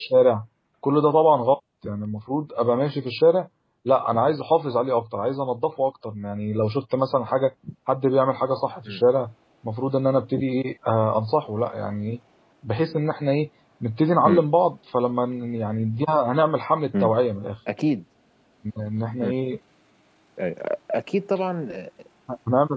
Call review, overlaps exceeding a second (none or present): none